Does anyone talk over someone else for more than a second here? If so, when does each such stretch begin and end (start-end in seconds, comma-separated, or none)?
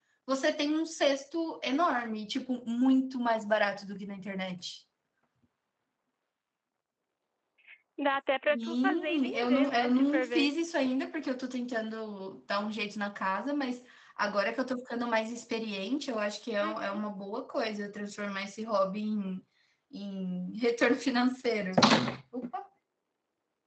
8.5-10.5